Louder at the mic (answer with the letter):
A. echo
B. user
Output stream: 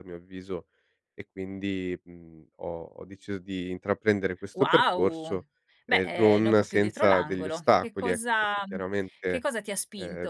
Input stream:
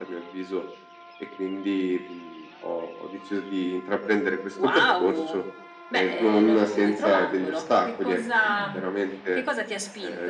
A